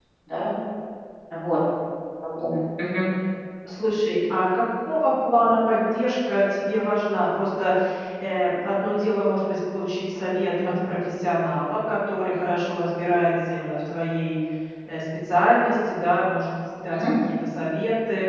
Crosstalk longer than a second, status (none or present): none